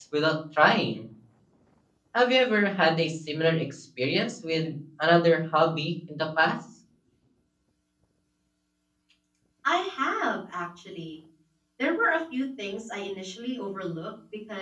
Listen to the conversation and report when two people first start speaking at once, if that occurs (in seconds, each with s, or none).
none